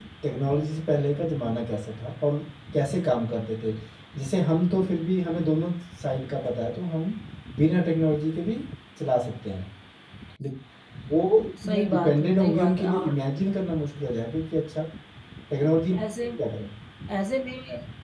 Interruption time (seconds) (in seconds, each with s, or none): 11.6 s